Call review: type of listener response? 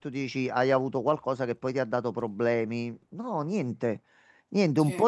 listening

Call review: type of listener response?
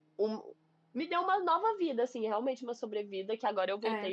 listening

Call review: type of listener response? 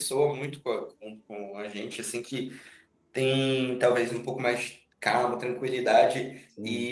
listening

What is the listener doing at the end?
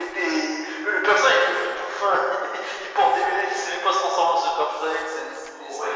taking over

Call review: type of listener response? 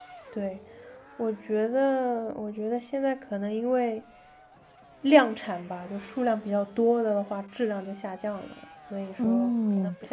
taking over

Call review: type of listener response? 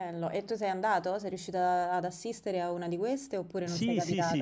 taking over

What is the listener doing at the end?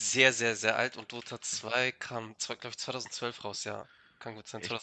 taking over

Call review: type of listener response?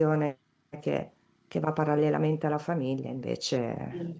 taking over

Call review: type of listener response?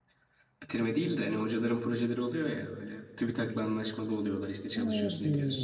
taking over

